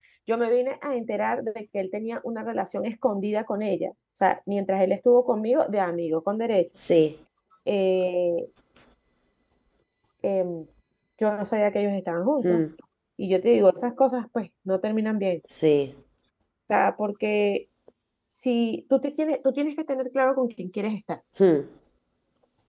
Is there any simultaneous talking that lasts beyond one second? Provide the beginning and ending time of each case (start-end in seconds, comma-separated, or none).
none